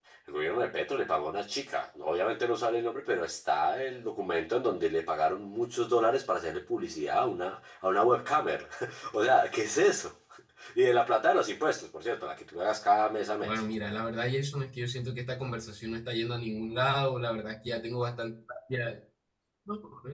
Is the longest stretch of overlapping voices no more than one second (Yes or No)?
Yes